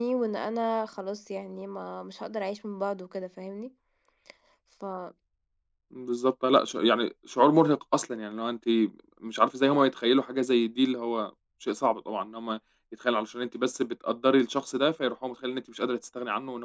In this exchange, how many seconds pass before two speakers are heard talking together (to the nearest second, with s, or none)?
none